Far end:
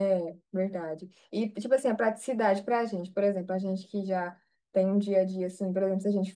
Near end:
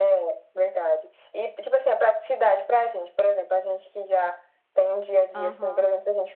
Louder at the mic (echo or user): echo